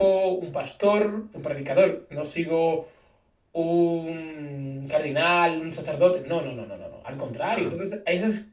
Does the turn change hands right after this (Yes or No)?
No